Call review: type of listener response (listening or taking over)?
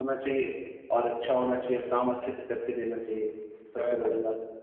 taking over